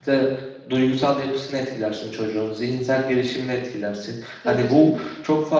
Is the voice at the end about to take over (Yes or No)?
No